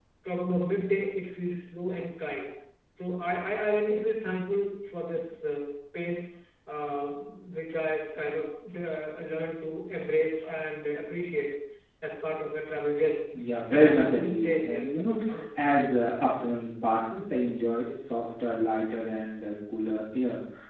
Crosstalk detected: Yes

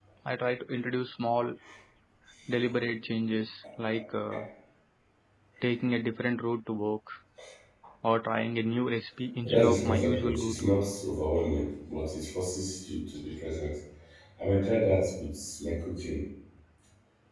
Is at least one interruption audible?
Yes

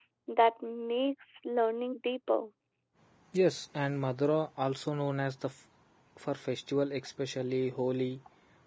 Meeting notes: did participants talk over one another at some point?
No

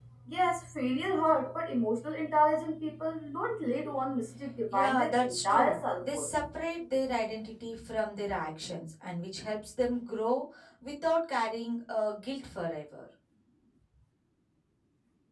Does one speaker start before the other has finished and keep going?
Yes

